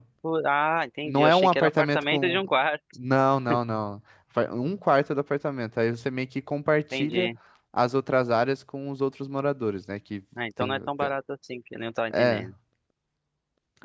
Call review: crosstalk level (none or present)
present